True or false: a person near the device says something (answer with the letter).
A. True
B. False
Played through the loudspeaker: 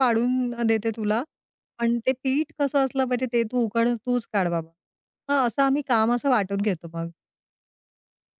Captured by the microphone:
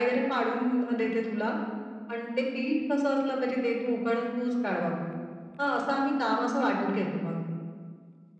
B